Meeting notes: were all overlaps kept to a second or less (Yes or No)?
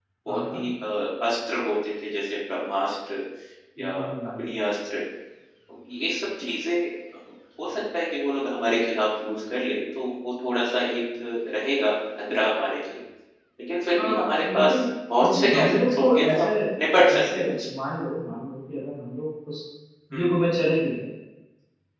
No